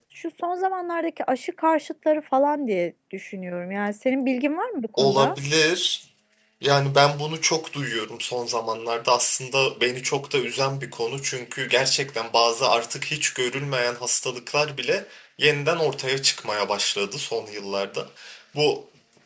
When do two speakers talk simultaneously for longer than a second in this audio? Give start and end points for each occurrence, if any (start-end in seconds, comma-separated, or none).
none